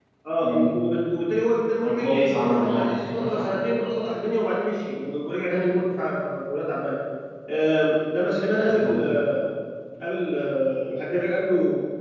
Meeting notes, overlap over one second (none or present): present